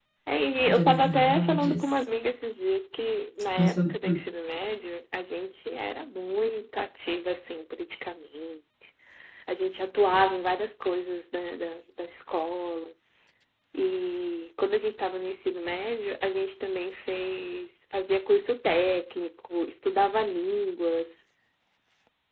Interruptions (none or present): present